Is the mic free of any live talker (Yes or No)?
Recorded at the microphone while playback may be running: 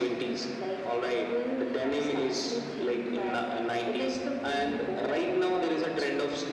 Yes